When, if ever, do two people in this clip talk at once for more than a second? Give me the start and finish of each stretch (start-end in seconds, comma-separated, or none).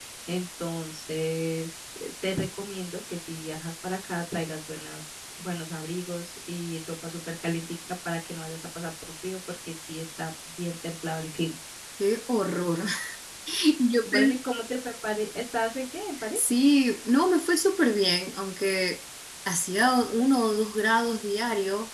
none